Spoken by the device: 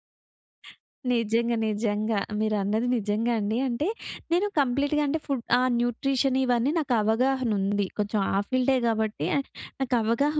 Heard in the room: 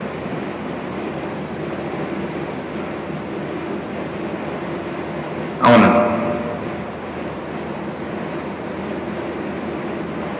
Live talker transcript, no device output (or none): అవునండి.